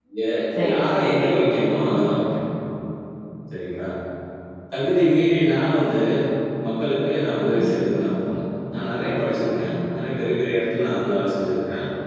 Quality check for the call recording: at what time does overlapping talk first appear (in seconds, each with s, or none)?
0.7 s